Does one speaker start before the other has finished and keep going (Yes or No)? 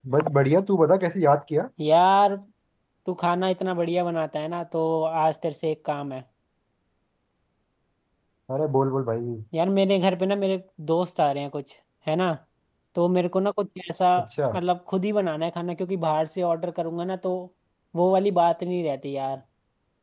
No